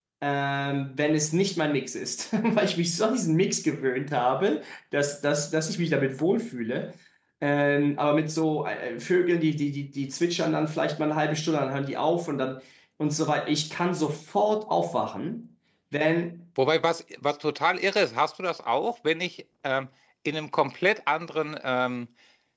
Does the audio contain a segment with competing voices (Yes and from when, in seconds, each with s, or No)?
No